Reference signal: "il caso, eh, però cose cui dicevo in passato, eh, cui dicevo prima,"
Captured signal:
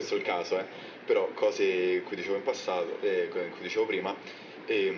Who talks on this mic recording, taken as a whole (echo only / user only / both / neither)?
echo only